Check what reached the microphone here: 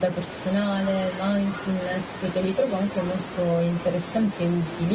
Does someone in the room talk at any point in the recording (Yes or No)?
No